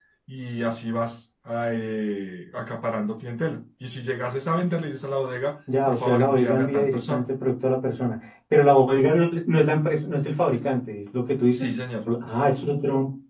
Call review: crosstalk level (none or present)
present